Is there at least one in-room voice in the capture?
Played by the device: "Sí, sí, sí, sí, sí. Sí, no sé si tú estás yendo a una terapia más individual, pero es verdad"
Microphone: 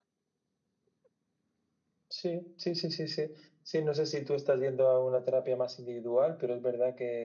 No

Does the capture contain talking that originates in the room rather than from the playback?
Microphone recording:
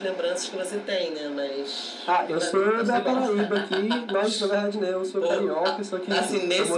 No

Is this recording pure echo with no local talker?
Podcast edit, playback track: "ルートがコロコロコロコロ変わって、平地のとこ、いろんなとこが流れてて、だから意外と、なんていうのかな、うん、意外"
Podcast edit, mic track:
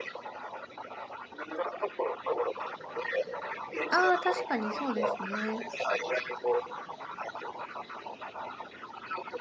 No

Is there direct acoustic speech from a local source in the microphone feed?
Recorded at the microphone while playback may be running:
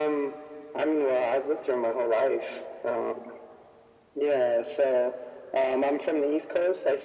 No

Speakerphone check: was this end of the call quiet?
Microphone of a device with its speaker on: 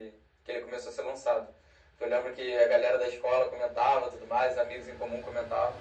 Yes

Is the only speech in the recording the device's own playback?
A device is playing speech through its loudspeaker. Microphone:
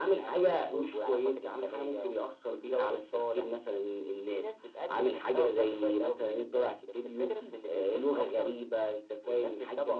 Yes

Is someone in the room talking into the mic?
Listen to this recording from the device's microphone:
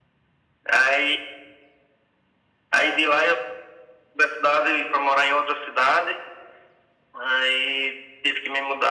No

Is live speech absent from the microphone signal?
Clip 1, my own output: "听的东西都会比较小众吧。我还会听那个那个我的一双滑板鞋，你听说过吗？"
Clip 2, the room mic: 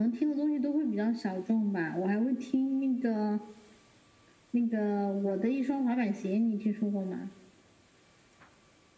Yes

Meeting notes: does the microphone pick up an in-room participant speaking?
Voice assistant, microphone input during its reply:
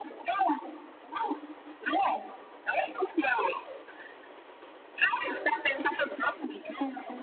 No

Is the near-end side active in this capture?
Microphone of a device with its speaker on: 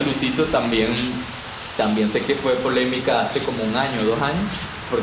No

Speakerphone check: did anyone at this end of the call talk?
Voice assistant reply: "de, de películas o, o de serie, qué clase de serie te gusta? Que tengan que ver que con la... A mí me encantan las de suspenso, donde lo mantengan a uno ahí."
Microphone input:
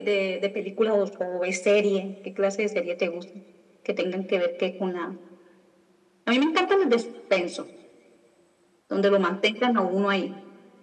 No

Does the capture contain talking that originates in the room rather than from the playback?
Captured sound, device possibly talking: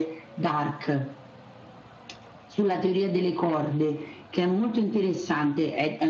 No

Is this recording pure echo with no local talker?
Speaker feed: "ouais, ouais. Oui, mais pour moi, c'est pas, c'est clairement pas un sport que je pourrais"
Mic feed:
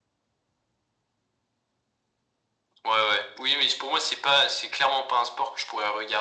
Yes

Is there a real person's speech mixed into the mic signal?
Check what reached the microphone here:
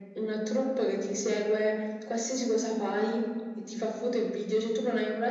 No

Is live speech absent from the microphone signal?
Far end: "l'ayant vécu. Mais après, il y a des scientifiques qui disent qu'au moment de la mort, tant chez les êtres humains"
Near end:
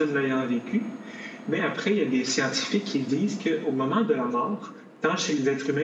Yes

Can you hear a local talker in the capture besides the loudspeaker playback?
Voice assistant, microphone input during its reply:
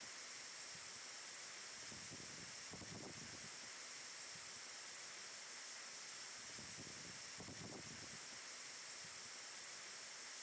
No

